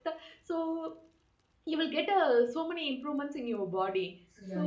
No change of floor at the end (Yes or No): No